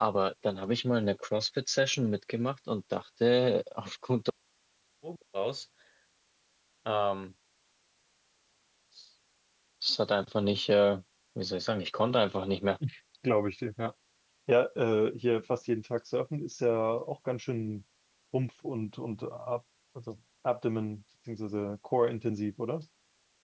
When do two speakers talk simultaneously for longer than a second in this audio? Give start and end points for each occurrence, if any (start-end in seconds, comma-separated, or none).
none